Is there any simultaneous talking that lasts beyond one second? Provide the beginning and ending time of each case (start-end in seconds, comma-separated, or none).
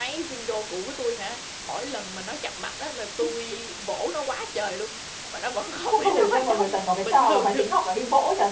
6.0-7.7